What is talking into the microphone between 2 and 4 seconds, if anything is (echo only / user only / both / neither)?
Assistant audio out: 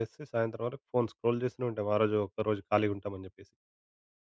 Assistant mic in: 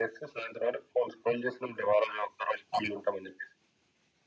echo only